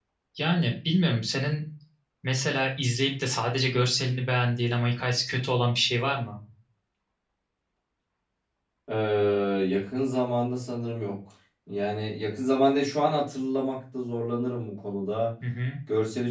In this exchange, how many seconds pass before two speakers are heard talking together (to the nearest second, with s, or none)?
none